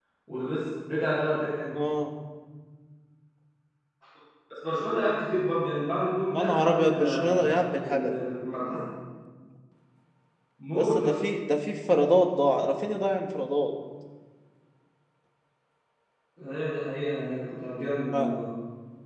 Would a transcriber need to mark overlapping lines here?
Yes, from 6.3 s

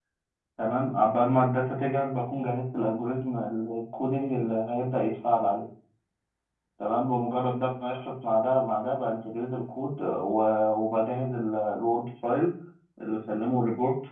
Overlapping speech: No

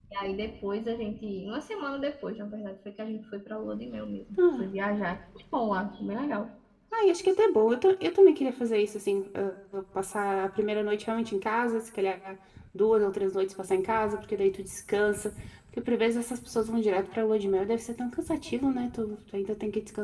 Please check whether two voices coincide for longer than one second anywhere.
No

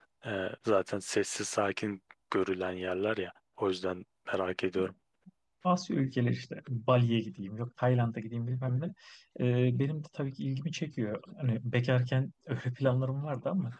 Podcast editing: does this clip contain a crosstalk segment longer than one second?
No

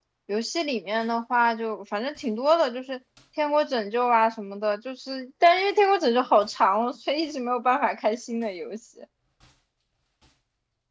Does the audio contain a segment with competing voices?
No

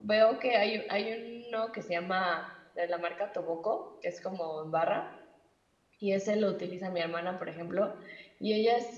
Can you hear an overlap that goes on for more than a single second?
No

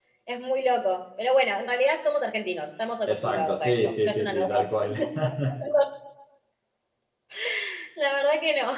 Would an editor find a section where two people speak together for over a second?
Yes, from 3.1 s

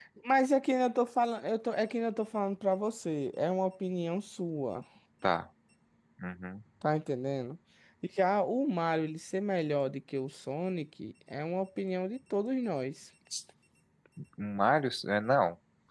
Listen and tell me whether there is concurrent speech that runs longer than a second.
No

